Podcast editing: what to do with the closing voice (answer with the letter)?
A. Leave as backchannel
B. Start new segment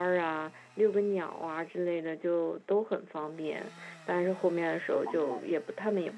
A